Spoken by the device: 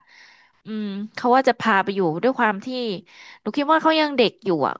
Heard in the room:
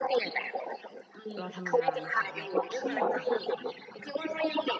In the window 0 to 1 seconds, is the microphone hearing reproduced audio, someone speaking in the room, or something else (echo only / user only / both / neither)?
echo only